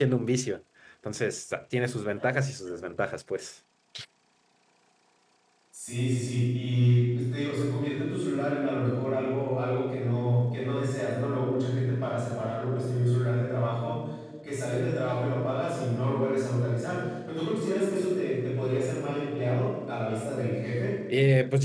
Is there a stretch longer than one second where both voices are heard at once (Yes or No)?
No